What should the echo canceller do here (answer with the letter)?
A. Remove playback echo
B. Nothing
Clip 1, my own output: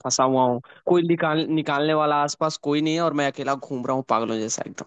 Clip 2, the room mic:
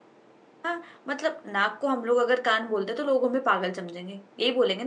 B